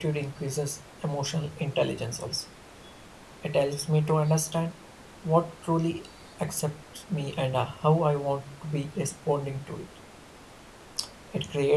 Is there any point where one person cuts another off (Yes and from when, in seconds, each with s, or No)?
No